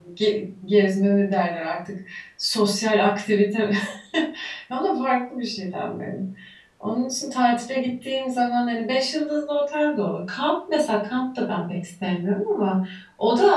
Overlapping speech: No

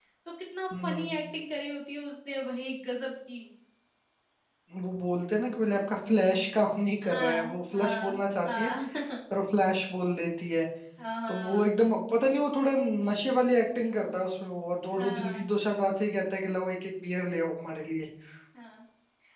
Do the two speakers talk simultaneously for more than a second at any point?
Yes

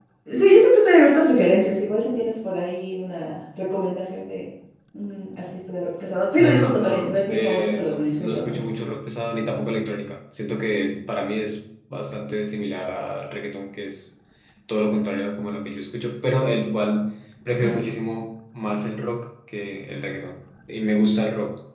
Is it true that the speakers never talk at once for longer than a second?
No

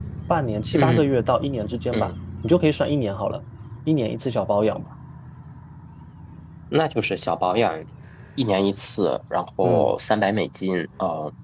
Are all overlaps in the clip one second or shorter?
Yes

